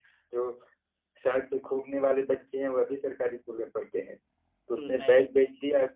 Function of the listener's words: listening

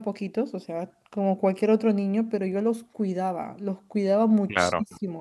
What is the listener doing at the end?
listening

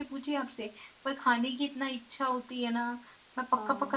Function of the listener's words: taking over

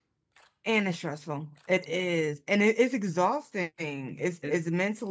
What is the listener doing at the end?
listening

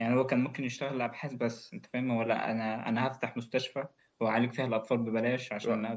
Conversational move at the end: listening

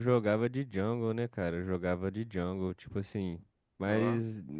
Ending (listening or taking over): listening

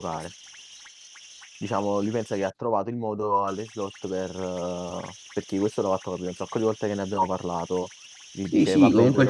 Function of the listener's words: taking over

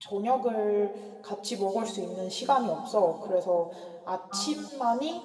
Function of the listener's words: listening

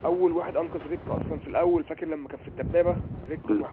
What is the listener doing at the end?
taking over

